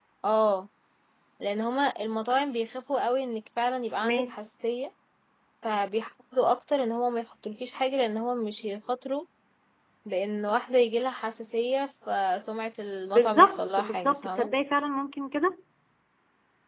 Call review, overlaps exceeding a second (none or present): present